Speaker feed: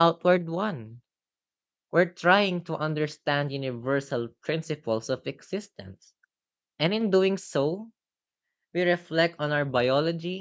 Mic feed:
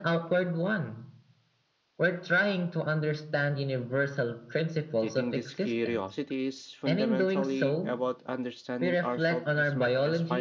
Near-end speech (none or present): present